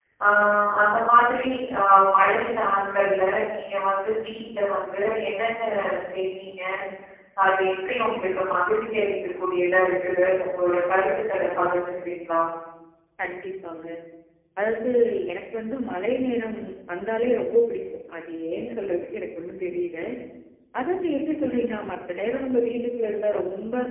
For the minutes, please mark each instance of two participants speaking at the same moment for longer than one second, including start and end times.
none

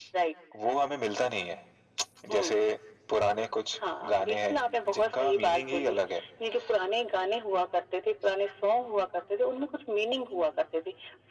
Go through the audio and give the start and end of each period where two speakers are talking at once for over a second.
4.0-6.0

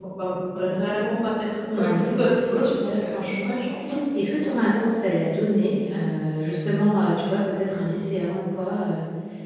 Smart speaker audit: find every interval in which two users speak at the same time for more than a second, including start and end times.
1.7-3.5

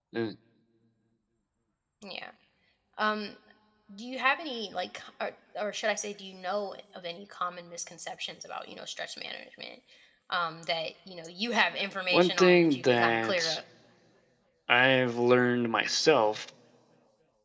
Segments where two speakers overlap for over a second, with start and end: 12.1-13.6

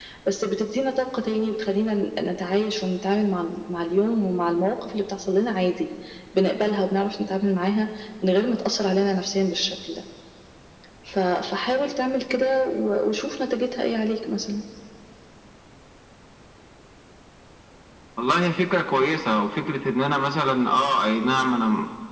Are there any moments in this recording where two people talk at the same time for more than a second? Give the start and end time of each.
none

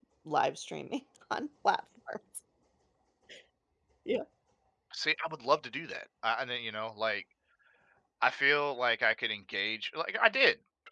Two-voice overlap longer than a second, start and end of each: none

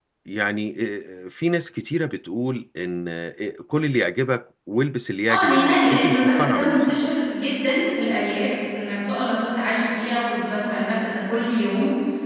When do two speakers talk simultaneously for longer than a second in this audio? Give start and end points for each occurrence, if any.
5.3-7.1

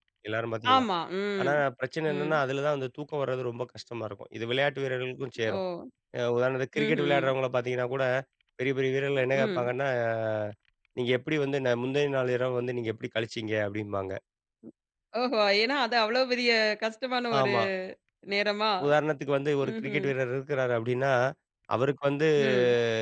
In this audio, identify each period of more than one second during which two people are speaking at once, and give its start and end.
none

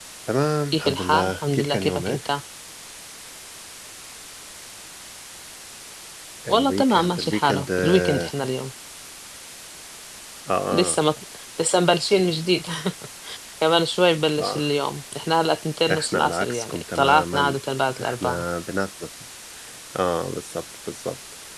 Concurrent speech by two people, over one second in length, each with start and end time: 0.7-2.3, 6.5-8.3, 15.9-17.6

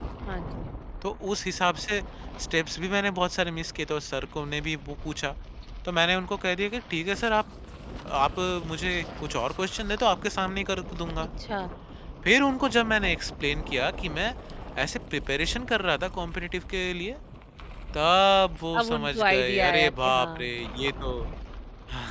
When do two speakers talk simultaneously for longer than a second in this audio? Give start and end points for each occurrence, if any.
18.8-20.3

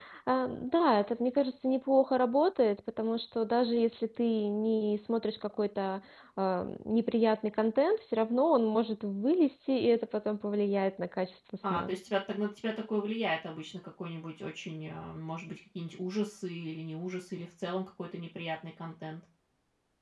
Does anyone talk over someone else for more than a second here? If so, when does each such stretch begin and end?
none

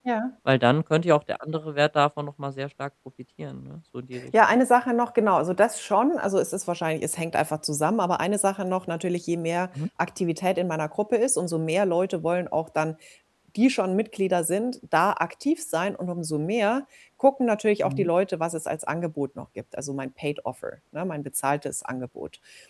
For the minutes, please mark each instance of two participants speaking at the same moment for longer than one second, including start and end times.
none

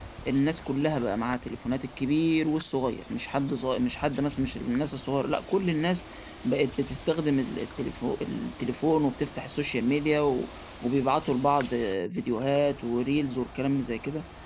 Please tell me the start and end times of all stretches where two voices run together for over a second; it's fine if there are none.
none

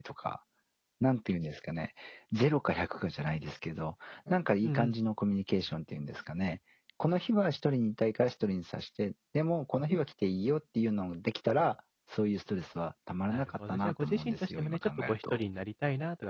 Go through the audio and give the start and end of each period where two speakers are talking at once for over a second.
13.3-15.4

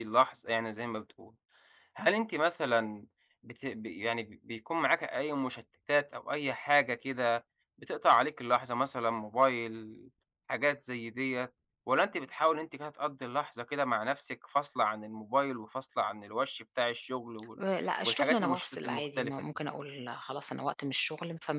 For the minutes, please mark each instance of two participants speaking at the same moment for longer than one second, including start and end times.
18.0-19.3

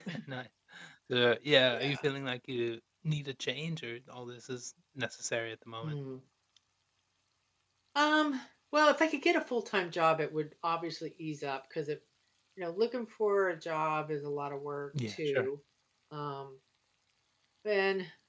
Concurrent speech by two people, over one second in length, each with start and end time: none

